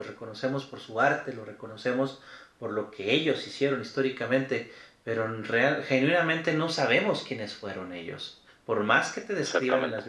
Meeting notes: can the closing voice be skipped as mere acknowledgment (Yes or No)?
Yes